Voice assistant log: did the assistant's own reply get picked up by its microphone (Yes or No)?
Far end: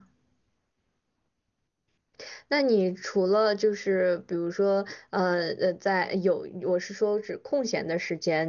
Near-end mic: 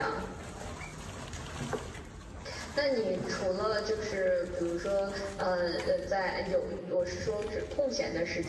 Yes